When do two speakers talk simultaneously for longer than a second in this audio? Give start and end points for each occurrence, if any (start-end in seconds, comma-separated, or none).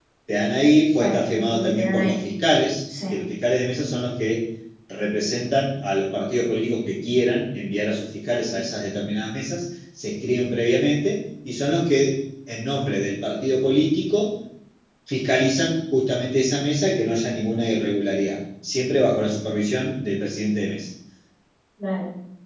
1.0-2.2